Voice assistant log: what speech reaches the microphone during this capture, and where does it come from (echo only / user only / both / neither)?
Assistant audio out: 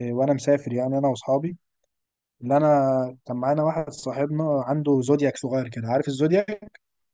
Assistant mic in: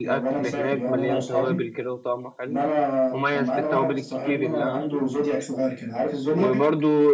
both